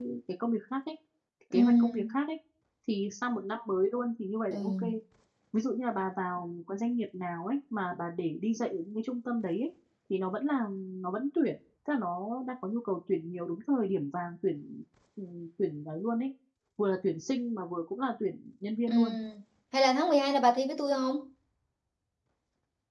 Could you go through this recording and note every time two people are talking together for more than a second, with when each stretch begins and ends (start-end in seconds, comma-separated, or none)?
none